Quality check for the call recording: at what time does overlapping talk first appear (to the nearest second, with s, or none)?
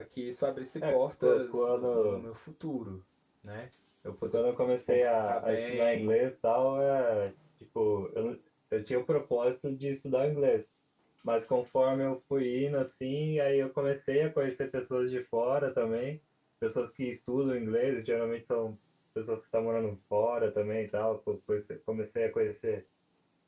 1 s